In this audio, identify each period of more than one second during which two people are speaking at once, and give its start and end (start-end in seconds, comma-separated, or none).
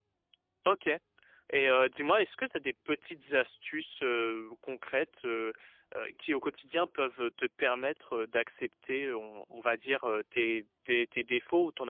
none